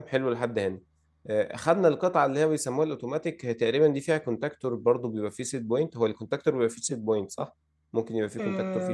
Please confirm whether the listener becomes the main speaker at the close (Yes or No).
Yes